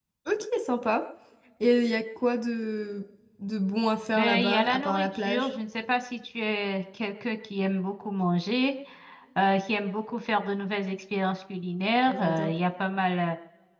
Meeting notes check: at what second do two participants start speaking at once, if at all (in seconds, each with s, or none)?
4.2 s